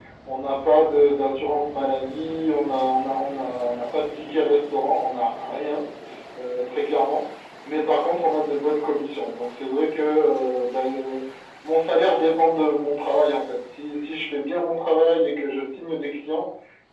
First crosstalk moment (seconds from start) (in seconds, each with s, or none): none